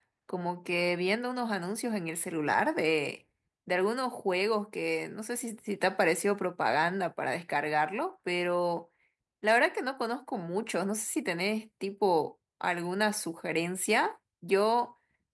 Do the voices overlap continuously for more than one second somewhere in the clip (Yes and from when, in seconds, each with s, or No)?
No